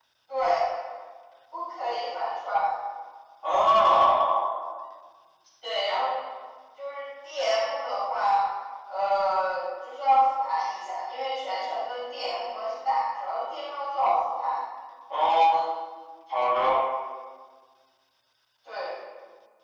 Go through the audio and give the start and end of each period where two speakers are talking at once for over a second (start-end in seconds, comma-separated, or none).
none